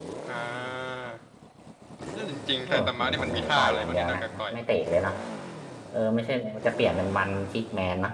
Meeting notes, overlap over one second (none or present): present